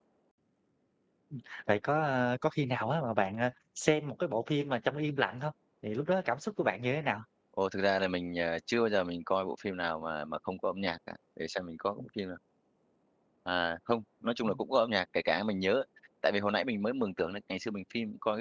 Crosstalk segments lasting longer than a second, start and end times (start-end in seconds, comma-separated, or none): none